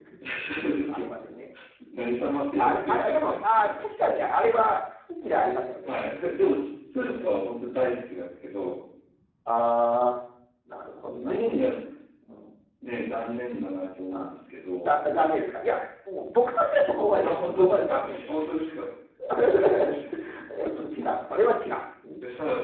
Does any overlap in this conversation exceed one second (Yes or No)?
Yes